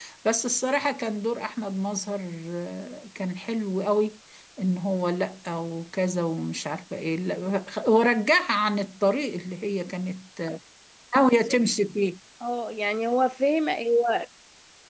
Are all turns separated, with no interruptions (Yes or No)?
Yes